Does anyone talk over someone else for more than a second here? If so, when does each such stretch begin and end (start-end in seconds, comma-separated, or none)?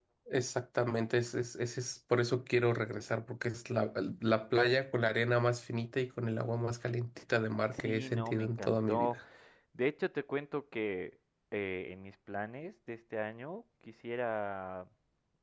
7.7-9.2